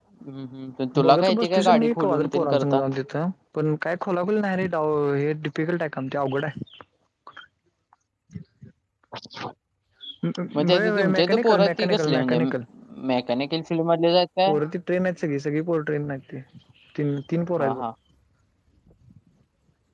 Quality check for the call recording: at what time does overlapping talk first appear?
1.0 s

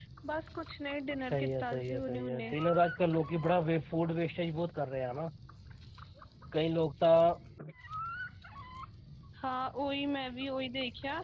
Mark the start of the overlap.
1.3 s

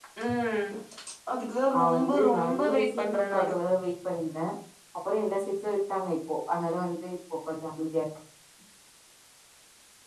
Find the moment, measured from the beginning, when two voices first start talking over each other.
1.7 s

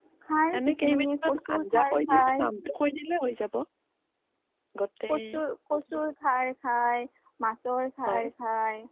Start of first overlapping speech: 0.6 s

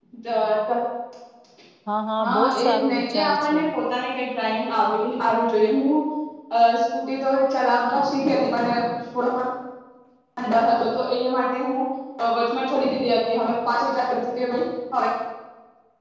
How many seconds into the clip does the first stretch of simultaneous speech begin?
2.2 s

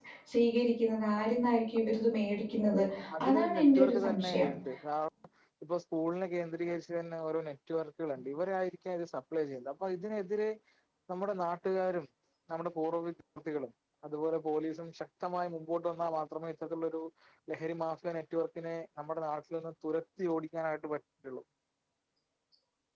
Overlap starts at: 3.3 s

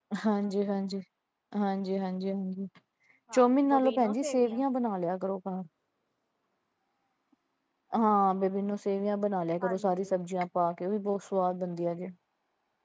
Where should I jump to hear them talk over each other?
3.3 s

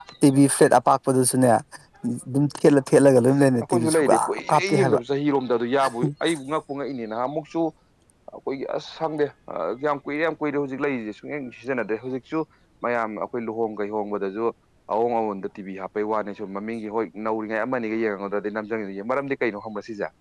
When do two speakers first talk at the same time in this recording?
3.6 s

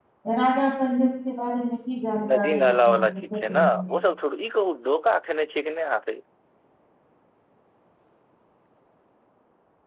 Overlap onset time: 2.2 s

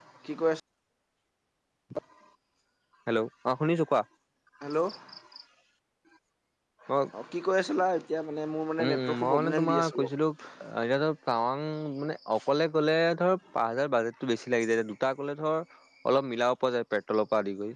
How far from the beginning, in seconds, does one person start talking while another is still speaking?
8.8 s

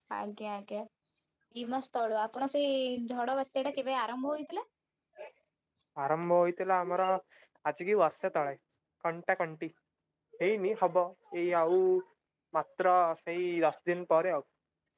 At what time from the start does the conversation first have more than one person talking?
none

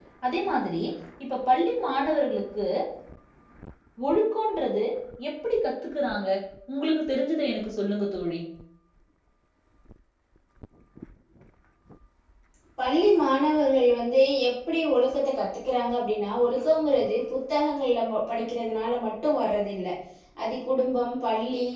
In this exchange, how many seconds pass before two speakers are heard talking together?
none

